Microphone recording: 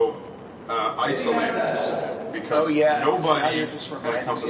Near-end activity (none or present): present